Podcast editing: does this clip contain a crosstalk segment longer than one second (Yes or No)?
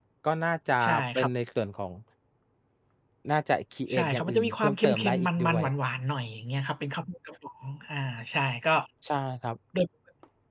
Yes